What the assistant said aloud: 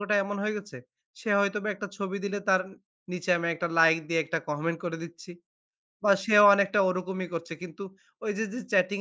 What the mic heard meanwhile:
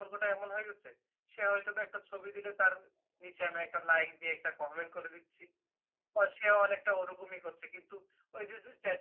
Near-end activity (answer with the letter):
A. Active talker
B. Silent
B